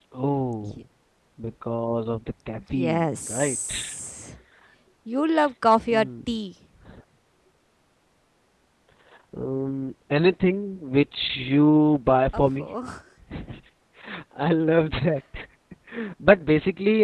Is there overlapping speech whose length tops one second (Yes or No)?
Yes